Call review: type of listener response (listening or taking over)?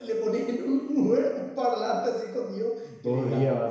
taking over